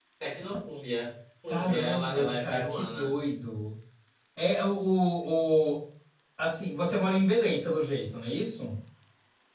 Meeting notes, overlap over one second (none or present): present